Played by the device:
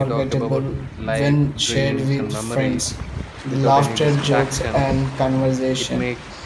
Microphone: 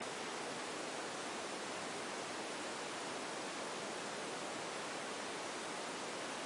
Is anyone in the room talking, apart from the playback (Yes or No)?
No